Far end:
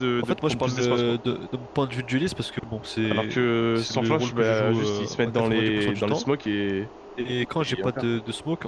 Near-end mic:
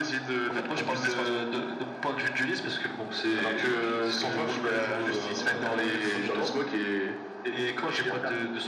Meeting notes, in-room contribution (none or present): present